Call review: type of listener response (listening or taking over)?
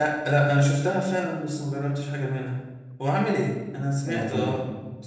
taking over